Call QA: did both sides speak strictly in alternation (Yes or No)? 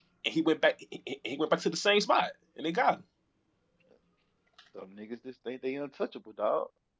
Yes